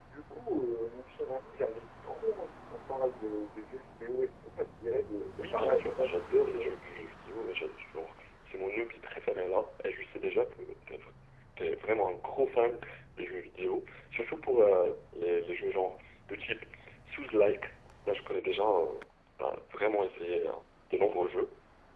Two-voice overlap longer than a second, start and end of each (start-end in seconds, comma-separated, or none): 5.4-6.8